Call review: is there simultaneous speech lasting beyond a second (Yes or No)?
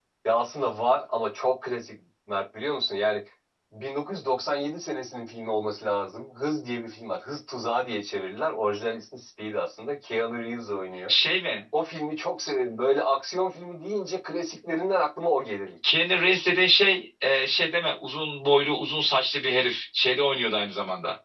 No